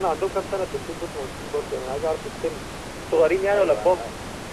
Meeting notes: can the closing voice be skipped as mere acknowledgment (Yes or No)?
No